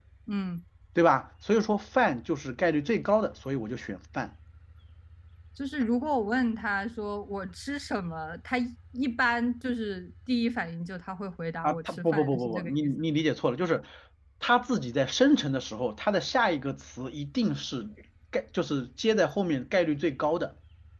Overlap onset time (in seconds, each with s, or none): 11.6 s